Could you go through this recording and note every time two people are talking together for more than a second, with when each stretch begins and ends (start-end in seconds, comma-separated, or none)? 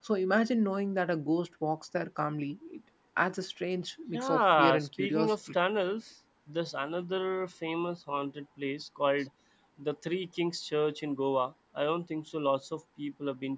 4.1-5.3